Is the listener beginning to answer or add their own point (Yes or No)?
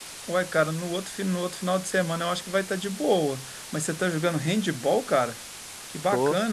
No